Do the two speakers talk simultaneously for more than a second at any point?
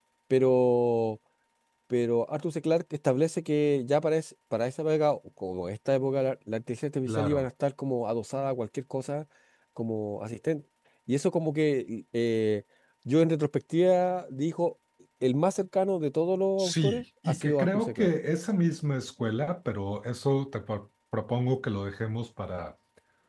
Yes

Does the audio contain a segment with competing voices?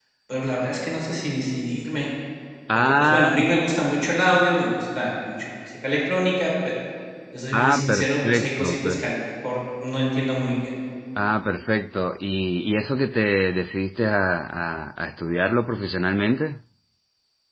Yes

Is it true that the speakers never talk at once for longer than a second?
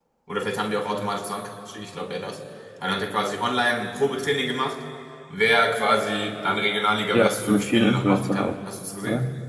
No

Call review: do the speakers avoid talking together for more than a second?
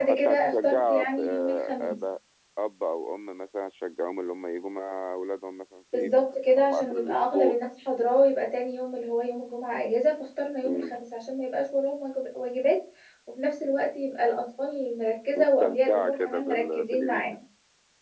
No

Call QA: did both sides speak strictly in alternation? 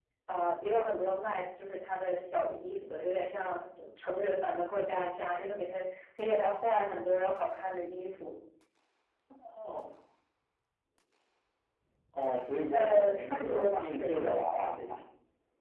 No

